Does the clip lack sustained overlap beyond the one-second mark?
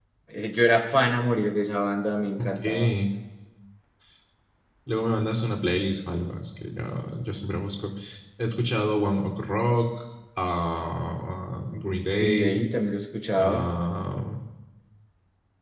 Yes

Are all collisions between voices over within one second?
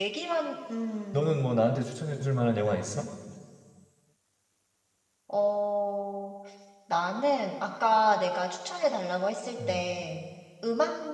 Yes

